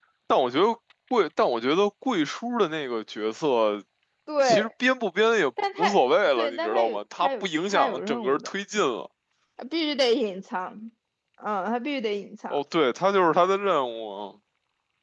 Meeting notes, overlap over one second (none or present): present